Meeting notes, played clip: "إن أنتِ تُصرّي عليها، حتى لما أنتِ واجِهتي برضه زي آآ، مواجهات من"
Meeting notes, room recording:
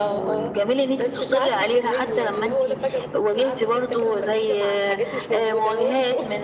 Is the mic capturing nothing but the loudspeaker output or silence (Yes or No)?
No